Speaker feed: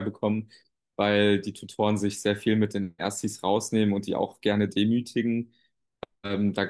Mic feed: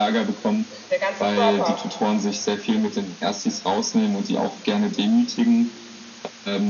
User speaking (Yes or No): Yes